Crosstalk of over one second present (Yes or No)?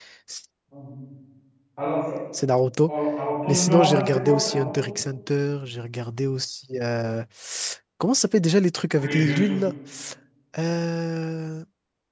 Yes